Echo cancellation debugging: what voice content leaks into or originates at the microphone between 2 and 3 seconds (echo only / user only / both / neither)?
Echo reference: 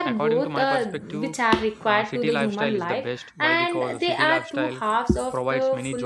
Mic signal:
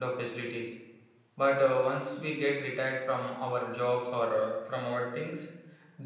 user only